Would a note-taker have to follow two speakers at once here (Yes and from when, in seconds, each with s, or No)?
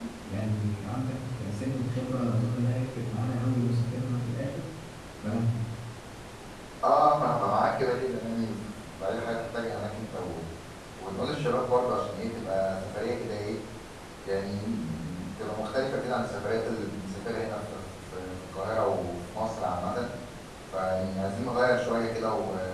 No